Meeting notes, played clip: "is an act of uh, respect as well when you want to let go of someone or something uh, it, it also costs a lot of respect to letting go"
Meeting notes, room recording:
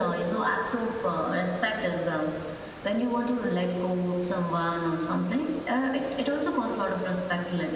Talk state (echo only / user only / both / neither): echo only